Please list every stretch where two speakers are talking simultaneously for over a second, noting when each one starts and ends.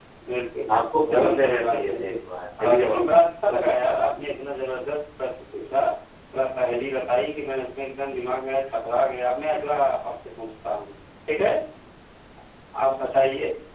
0.7-2.2

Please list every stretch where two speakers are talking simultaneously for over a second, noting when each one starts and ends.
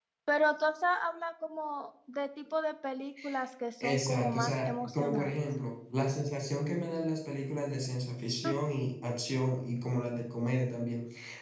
3.8-5.4

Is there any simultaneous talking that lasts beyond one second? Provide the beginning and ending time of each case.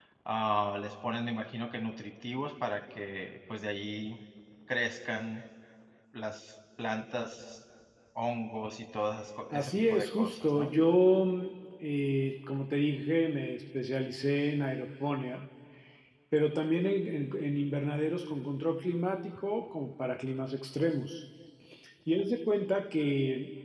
9.5-10.7

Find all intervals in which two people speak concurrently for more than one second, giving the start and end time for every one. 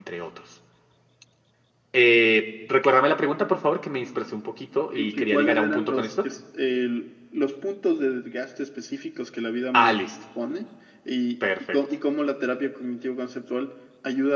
4.9-6.3

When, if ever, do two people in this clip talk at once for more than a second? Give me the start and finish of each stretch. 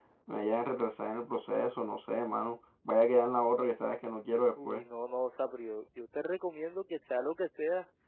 none

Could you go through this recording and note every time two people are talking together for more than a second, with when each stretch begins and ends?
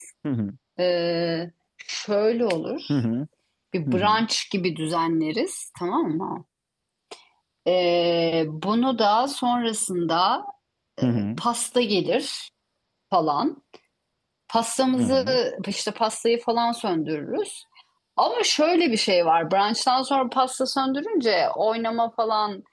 none

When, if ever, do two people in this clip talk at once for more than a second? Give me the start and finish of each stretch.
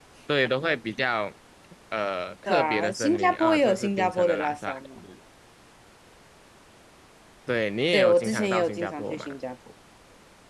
2.5-4.7, 7.9-9.4

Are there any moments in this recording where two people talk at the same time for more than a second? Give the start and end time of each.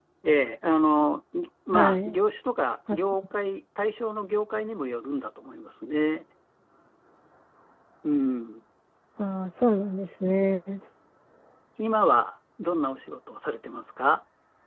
none

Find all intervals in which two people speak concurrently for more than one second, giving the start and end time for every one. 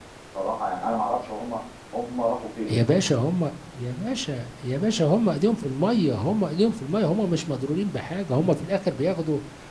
none

